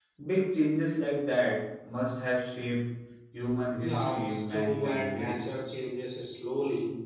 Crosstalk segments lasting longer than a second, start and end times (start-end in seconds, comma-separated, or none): 3.8-5.5